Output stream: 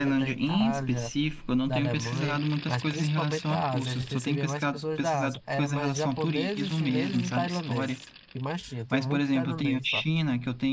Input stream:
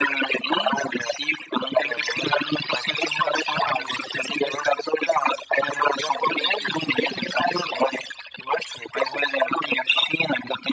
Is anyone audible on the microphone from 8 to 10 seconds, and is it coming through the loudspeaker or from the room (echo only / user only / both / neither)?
echo only